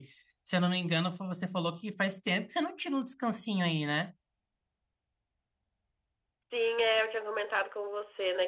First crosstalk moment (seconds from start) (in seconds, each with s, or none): none